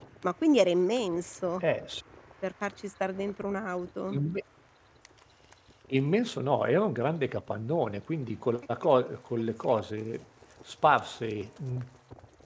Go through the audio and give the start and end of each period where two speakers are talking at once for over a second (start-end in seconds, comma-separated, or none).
none